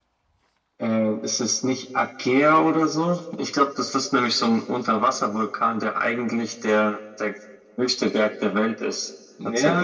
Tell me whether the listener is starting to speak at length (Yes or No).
Yes